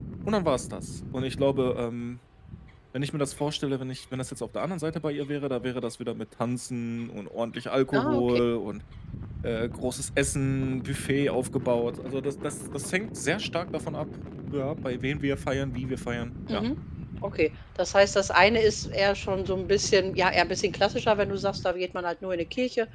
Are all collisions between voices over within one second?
Yes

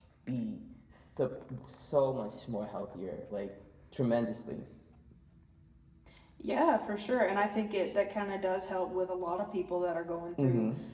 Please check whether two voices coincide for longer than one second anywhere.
No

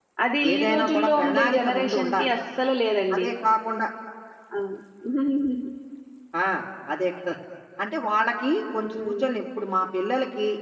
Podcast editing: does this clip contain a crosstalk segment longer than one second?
Yes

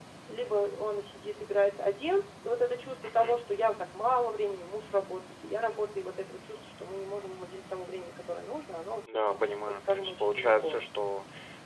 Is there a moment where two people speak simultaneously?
Yes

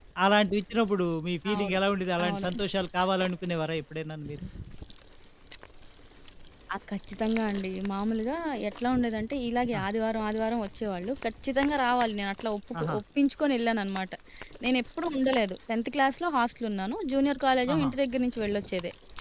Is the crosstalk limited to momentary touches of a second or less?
Yes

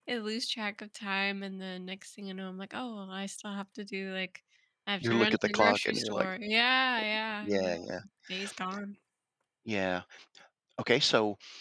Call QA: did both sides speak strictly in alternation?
No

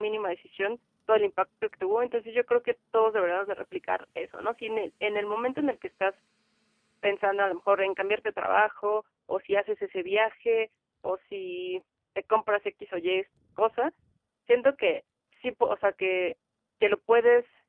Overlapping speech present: No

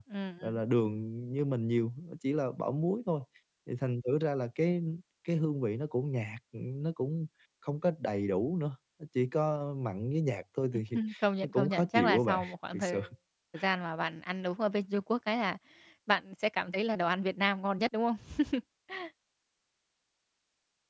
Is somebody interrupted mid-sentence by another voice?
Yes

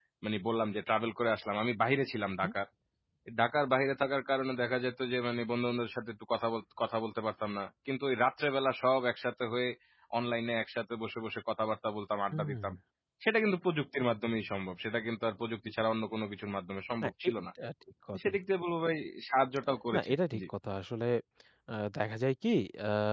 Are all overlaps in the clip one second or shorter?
Yes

